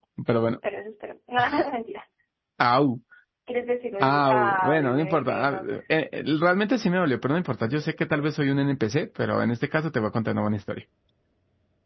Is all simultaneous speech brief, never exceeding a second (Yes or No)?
No